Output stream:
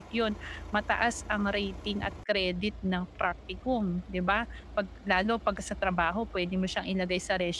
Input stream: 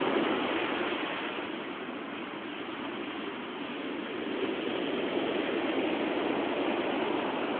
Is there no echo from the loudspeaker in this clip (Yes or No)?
Yes